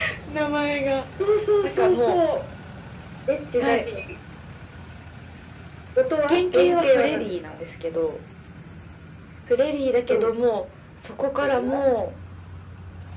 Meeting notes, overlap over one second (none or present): present